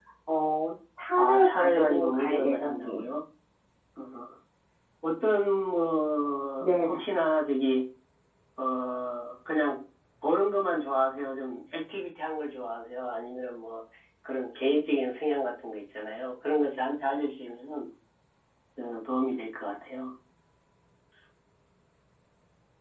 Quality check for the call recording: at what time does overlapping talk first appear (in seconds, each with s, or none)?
1.2 s